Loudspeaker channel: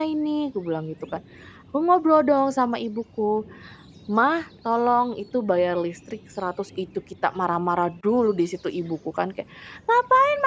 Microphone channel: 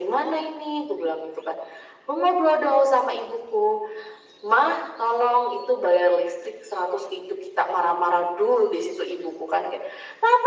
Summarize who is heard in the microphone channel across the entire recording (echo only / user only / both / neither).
echo only